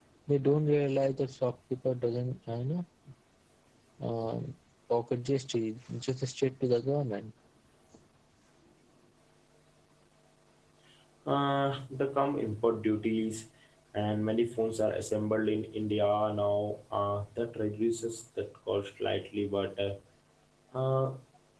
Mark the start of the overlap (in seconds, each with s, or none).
none